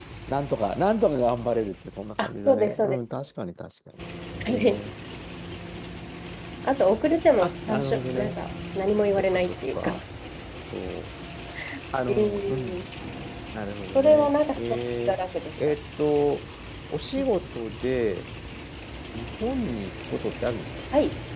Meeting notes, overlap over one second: present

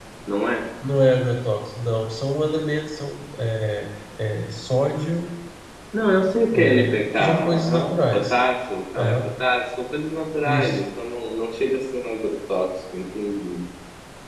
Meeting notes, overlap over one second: present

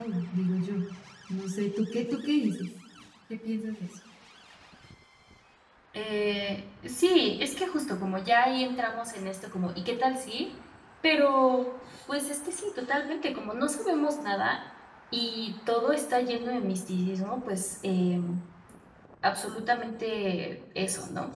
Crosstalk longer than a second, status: none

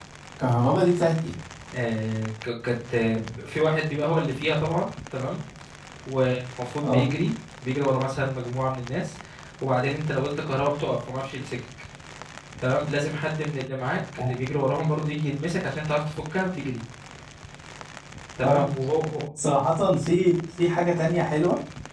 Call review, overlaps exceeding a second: none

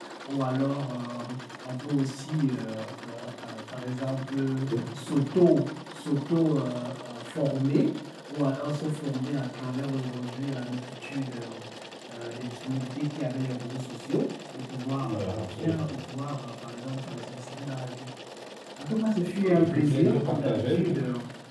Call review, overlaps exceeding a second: present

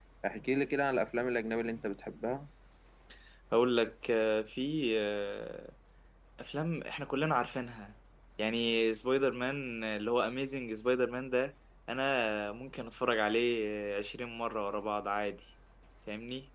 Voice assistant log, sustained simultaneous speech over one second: none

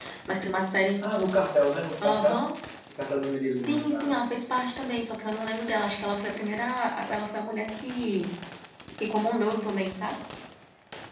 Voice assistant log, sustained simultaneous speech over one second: none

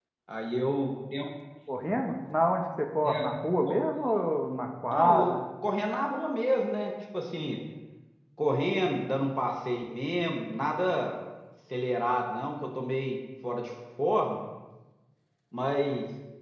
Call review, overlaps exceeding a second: none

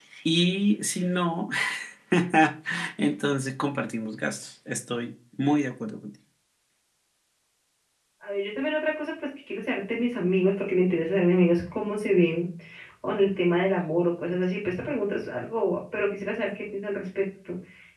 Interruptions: none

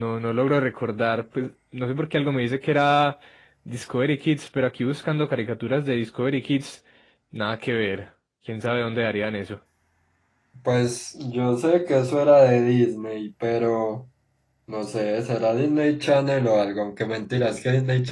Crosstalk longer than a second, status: none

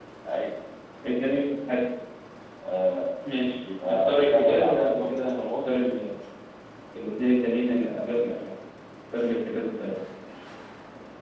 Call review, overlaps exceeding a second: present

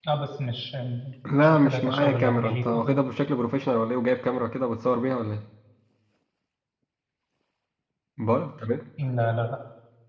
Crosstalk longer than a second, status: present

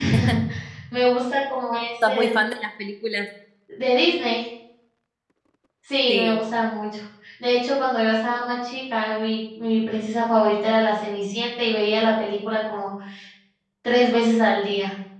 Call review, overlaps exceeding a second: none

